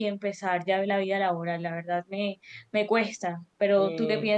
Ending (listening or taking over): taking over